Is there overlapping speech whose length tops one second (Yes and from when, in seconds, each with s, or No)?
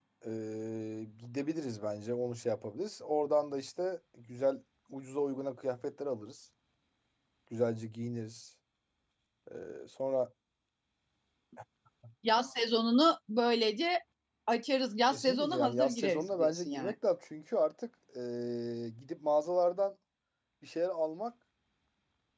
Yes, from 15.1 s